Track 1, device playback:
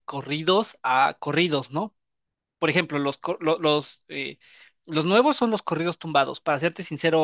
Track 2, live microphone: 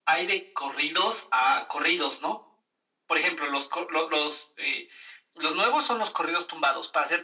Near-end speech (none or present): none